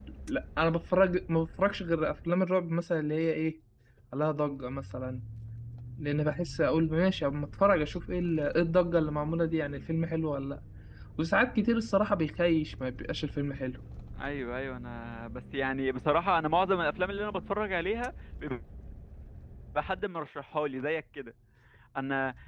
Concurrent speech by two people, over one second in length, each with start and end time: none

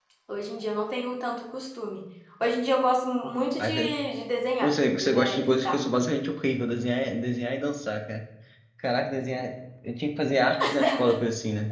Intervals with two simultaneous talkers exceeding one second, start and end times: 4.6-5.8

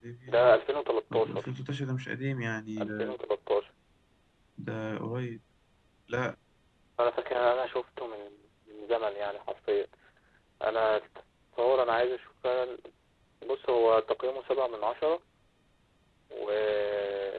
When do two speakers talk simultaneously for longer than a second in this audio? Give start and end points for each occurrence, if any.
none

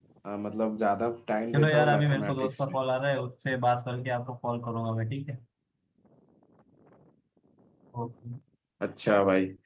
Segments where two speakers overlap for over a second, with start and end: 1.5-2.8

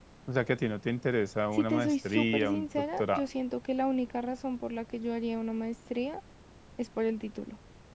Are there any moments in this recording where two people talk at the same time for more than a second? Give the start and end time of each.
1.5-3.3

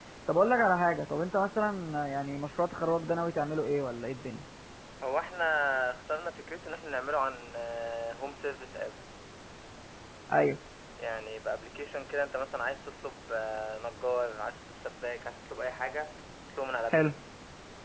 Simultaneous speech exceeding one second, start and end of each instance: none

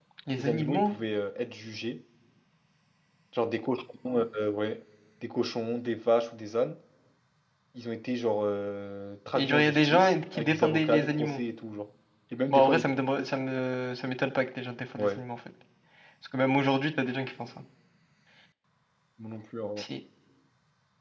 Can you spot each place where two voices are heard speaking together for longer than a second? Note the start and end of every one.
9.3-11.4

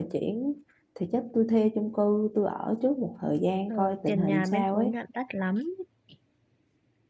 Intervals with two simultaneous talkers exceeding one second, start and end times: 3.7-4.9

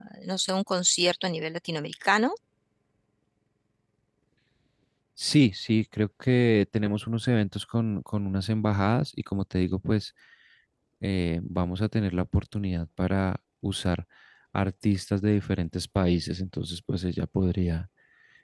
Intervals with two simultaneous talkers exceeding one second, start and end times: none

